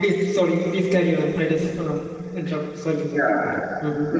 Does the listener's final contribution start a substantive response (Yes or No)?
Yes